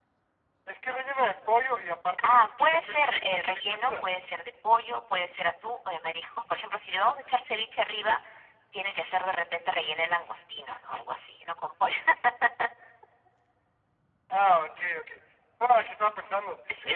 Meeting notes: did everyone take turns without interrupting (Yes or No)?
No